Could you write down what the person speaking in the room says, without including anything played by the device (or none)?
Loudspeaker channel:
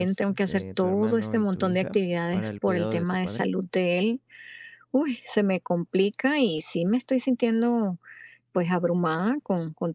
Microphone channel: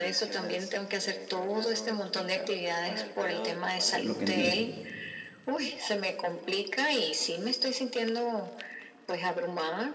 por lo que entiendo.